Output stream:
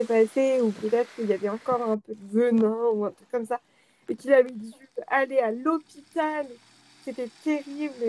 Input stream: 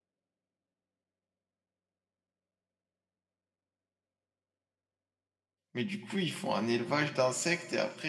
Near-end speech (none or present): present